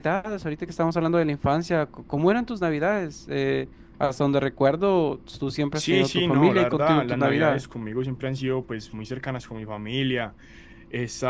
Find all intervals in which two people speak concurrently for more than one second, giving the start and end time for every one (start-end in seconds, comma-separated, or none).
5.8-7.6